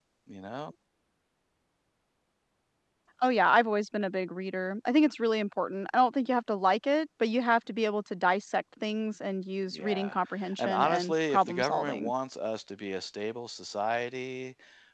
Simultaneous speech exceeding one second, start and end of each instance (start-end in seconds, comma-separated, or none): 10.6-12.1